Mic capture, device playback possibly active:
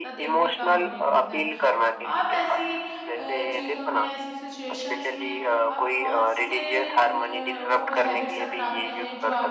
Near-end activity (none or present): present